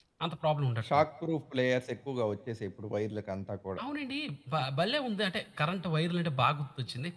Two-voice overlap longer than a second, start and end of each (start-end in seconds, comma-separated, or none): none